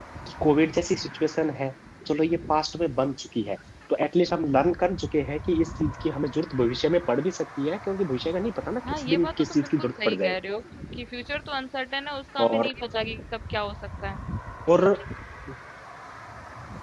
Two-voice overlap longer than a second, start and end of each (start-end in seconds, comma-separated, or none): 9.0-10.4